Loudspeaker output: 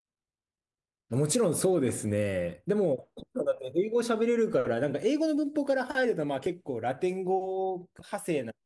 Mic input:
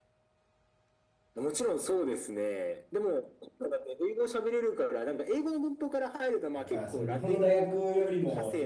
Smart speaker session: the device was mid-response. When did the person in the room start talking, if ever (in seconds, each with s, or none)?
6.5 s